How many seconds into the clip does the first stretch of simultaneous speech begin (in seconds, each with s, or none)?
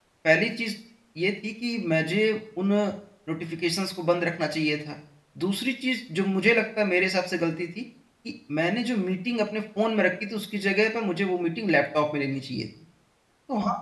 none